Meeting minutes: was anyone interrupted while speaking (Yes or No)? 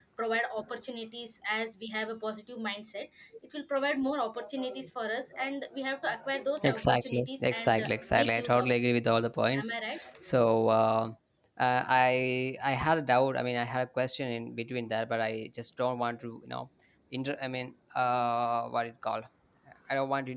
Yes